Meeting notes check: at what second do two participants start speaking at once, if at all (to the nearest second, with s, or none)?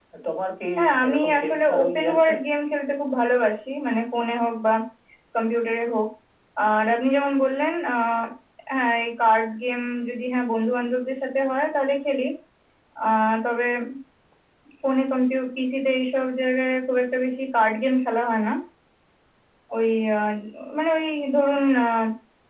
1 s